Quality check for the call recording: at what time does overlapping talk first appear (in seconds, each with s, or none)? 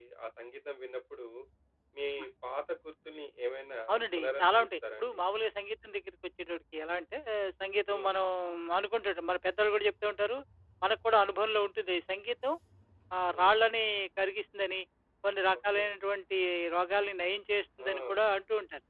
3.9 s